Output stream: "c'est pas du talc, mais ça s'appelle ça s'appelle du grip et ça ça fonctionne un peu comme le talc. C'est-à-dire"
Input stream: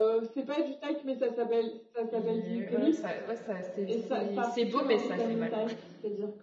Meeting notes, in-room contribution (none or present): present